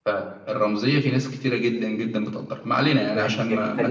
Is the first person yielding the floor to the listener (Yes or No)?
Yes